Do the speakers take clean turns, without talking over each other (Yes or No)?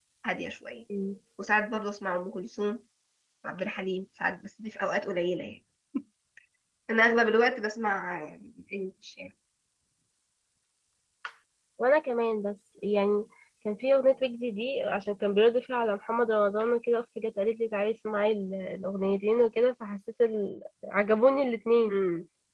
Yes